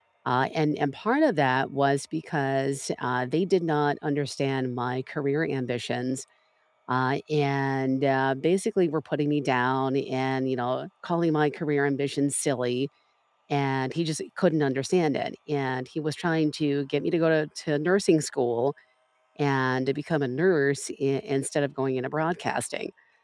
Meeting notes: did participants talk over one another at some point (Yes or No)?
No